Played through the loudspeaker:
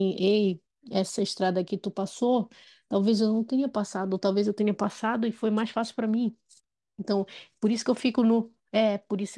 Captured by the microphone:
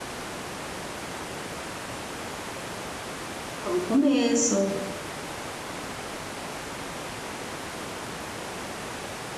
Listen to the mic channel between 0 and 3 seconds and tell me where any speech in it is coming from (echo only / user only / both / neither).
neither